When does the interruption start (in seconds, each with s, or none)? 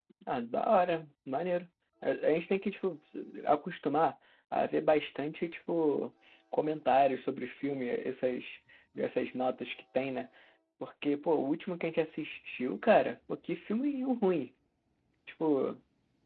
none